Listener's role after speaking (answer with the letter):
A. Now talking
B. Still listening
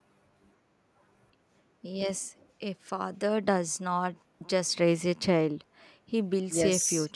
A